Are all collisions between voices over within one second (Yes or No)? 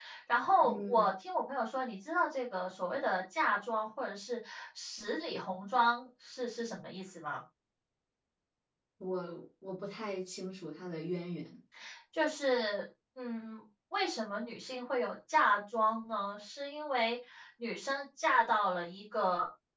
Yes